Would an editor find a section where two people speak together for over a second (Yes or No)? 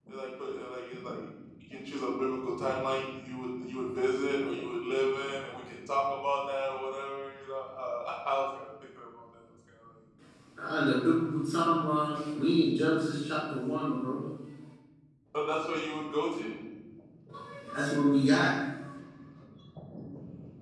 No